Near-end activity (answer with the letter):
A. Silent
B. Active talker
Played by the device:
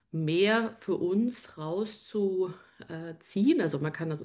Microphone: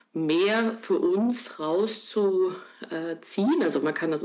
A